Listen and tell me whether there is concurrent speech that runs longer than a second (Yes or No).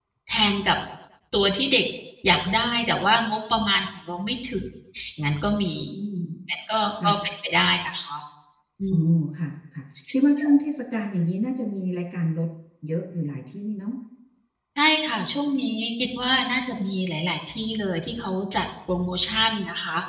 No